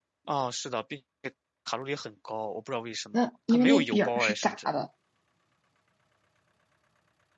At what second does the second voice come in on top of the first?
3.1 s

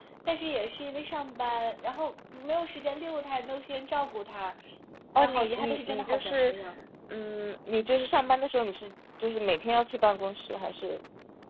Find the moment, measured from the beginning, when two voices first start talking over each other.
5.2 s

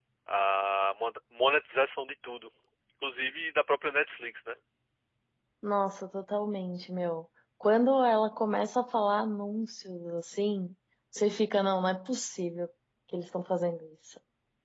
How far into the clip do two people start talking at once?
none

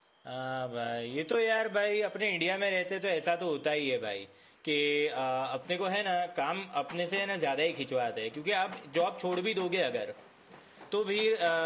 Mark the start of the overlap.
none

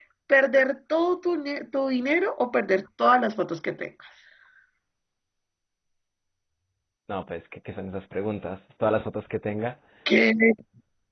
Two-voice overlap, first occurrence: none

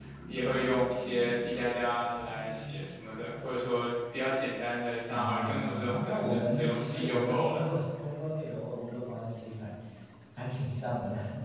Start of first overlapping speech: 5.1 s

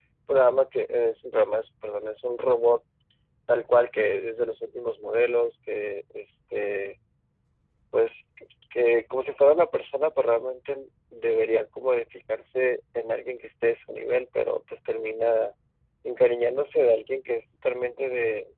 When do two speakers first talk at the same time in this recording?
none

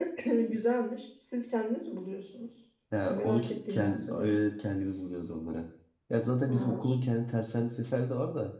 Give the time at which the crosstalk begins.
3.1 s

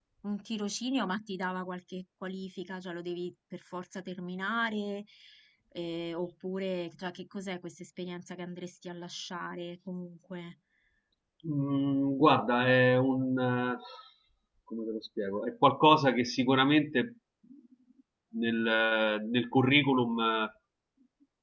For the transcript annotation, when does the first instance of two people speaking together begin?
none

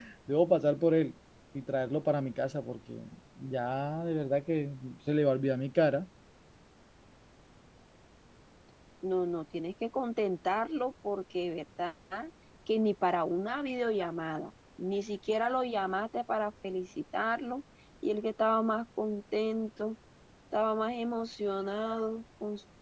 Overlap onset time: none

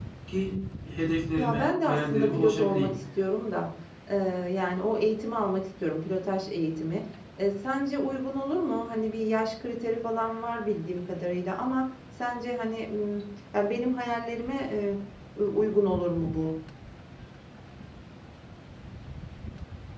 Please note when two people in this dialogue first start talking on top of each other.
1.4 s

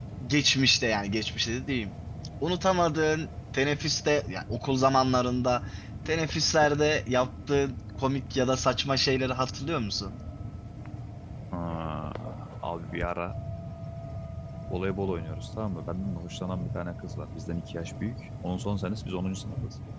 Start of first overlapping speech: none

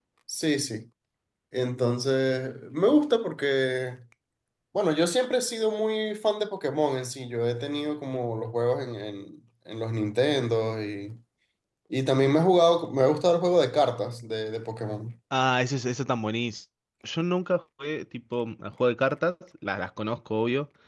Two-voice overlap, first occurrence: none

